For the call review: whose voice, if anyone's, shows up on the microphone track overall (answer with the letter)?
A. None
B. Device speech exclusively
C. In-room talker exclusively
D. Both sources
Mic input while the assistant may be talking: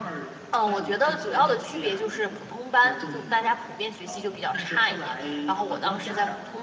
D